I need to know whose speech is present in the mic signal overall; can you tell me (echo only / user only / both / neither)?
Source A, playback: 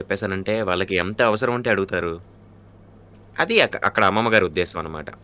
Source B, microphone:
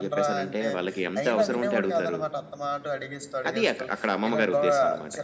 both